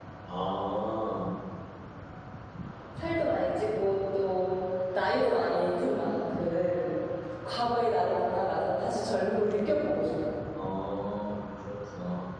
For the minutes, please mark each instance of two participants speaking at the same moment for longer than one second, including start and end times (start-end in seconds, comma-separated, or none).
none